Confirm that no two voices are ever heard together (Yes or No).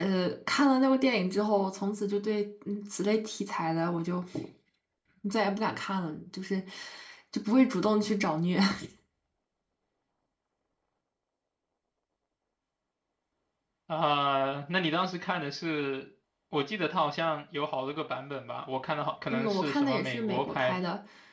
No